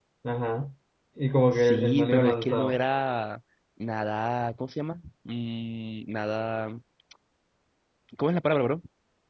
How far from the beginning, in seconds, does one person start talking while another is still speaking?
2 s

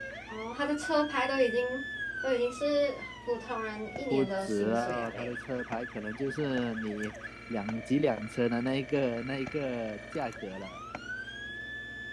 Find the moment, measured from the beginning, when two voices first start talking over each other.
4 s

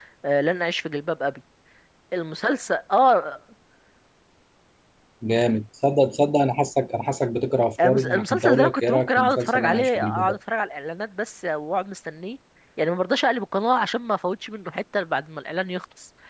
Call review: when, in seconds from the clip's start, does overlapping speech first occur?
8 s

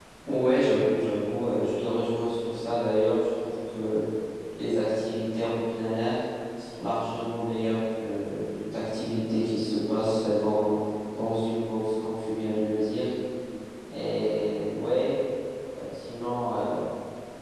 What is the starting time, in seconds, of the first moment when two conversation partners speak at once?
none

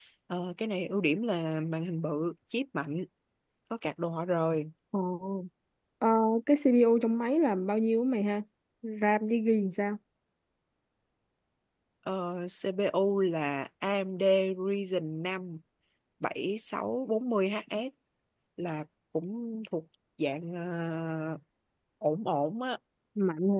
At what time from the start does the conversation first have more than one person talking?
none

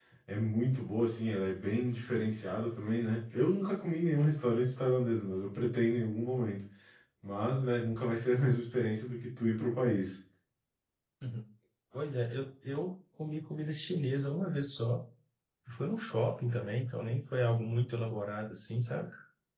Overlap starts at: none

